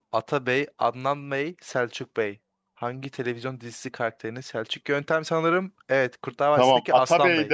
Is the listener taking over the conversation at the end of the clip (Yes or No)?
Yes